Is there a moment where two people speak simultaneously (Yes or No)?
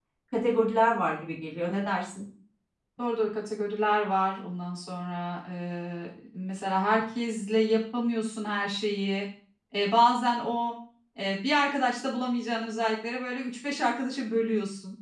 No